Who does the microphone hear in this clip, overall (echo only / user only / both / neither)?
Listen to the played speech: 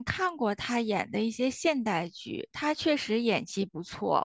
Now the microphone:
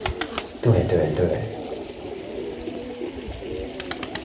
user only